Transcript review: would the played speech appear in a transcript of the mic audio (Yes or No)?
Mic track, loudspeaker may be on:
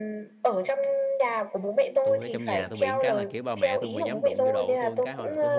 Yes